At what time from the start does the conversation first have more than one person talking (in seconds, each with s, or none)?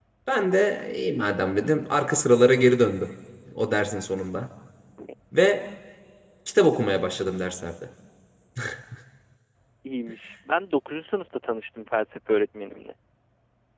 none